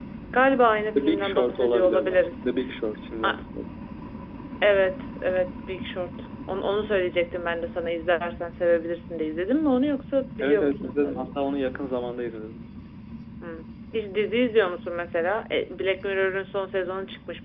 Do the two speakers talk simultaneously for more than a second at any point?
Yes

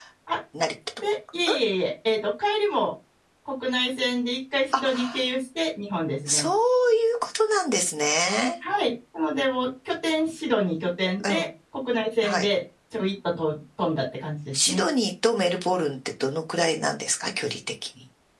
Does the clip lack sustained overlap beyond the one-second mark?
Yes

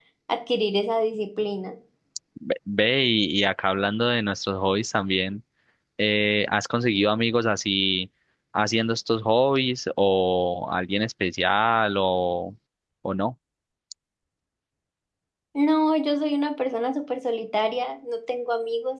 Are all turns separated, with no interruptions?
Yes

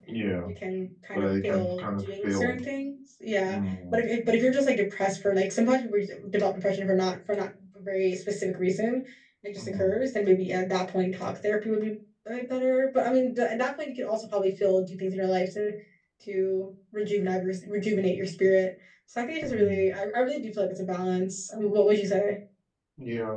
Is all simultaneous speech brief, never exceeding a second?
No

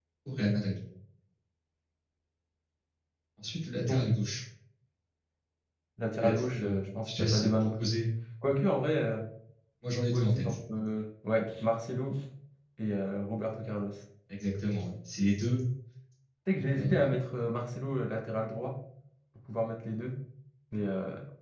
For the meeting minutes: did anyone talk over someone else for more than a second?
Yes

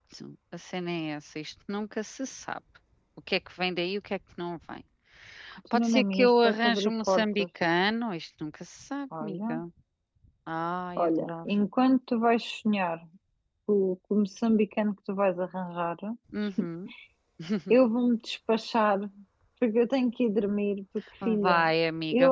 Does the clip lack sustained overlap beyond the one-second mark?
No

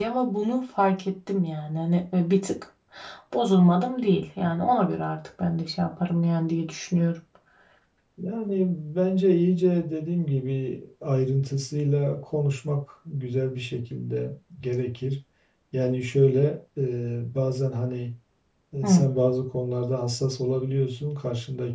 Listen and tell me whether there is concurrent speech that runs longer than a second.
No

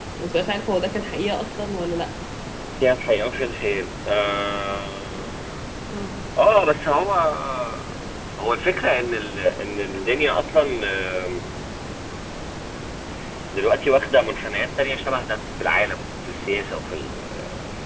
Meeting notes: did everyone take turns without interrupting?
Yes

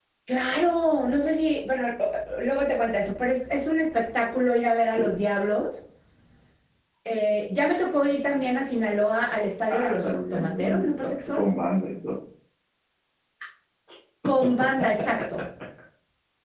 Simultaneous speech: Yes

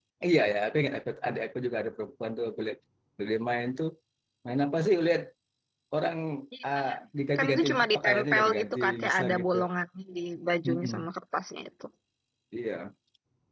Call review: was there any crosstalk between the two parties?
Yes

